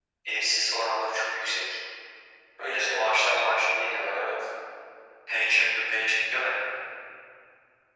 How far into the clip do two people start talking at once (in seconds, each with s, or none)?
2.6 s